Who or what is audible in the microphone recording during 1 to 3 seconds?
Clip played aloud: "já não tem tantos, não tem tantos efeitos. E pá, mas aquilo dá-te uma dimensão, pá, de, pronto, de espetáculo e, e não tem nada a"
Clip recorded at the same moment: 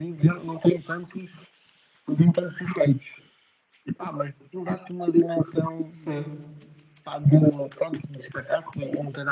echo only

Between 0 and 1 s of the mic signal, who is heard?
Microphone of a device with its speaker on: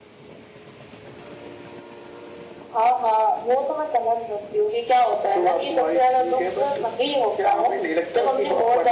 neither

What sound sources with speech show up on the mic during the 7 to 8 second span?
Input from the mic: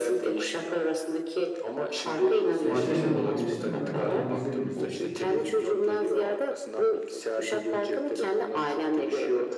echo only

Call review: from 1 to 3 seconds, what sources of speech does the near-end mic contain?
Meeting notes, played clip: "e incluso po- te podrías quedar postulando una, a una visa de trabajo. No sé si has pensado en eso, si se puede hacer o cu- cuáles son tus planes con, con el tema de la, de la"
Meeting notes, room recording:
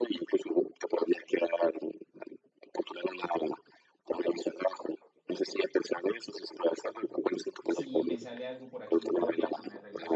echo only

